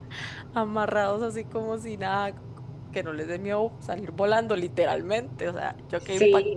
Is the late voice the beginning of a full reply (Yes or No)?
Yes